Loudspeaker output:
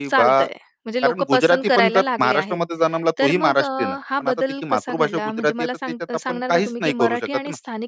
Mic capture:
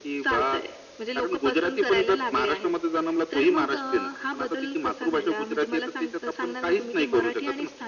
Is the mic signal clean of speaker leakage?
No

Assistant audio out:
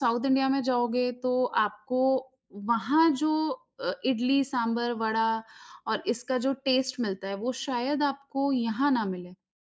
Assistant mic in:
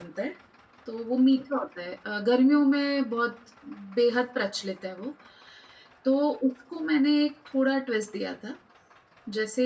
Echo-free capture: Yes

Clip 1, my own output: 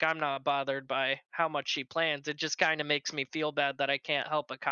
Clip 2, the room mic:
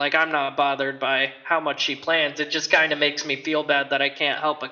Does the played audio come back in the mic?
Yes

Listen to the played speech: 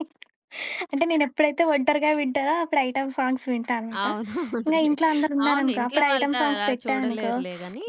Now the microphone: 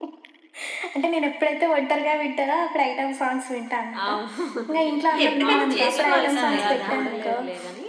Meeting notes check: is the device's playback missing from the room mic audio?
No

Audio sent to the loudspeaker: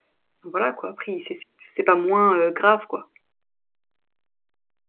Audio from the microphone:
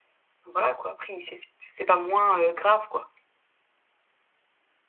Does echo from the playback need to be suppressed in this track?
Yes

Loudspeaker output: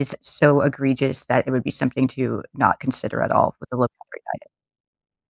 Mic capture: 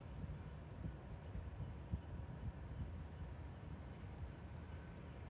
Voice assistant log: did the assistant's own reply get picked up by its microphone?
No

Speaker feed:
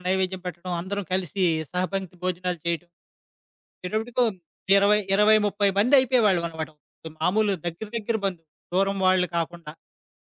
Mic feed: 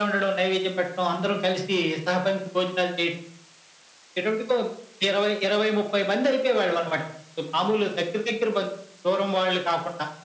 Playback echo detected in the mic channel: Yes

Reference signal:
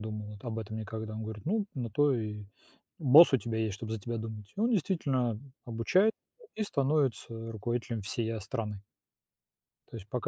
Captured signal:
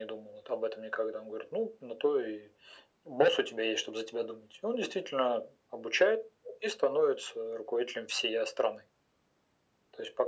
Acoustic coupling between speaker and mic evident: Yes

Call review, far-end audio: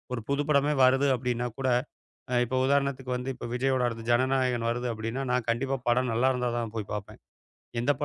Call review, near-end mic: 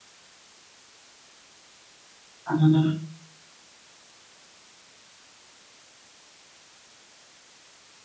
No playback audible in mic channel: Yes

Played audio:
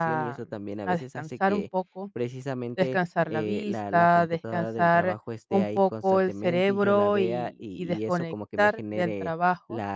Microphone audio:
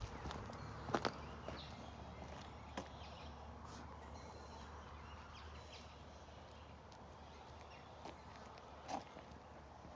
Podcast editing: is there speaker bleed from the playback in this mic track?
No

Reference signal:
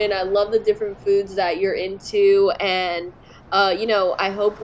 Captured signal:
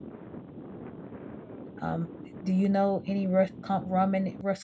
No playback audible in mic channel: Yes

